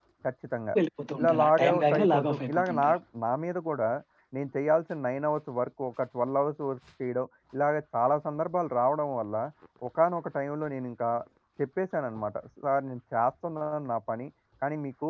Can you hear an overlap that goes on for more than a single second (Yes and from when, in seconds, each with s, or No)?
Yes, from 1.2 s